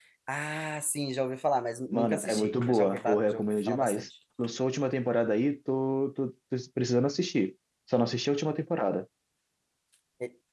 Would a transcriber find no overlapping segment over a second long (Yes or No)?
No